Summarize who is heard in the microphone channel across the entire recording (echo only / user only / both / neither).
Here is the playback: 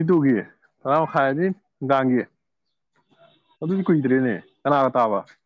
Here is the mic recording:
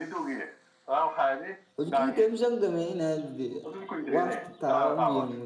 both